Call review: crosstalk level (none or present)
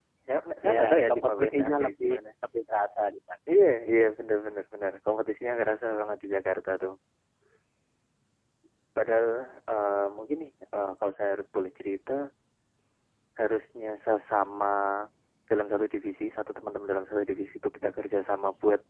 present